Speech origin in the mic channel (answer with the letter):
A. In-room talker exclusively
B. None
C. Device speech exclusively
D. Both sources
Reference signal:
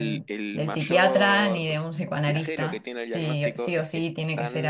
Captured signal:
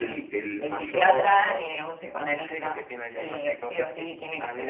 C